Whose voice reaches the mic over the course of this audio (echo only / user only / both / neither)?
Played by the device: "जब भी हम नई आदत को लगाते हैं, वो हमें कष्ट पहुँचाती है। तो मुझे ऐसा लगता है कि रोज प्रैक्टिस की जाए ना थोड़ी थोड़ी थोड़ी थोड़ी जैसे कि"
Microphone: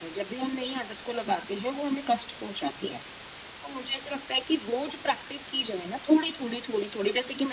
echo only